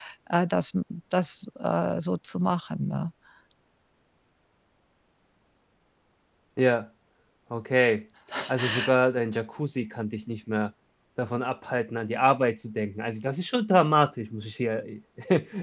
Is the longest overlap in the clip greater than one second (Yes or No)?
No